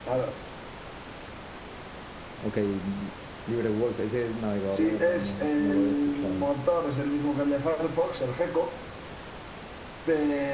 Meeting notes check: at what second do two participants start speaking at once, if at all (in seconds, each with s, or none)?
4.8 s